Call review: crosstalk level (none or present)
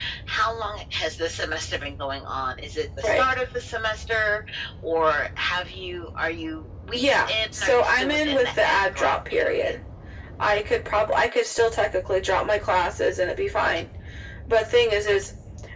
present